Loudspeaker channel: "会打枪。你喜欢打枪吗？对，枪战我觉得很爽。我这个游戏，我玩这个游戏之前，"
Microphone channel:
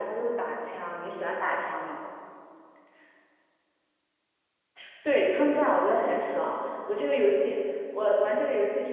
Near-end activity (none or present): none